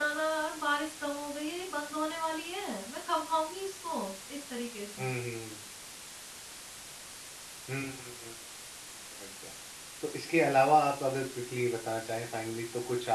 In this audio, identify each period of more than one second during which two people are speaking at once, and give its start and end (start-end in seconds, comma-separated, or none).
none